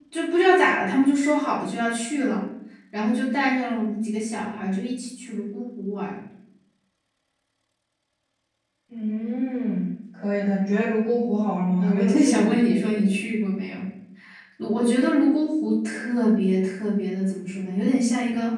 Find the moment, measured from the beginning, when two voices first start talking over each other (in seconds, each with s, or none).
11.8 s